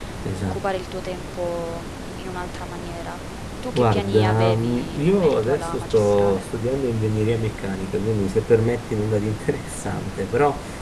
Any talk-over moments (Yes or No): Yes